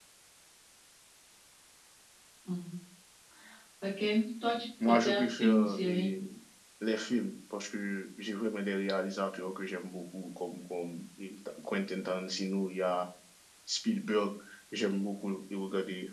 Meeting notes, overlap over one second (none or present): present